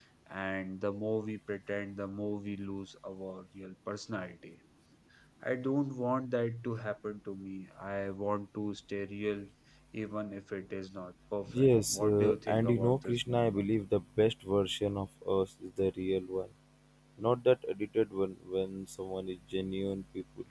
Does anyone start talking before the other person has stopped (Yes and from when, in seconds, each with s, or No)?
Yes, from 11.5 s